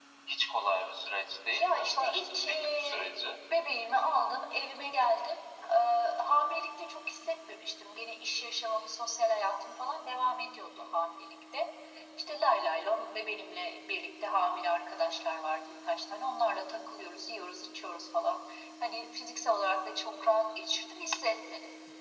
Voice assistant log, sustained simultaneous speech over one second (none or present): present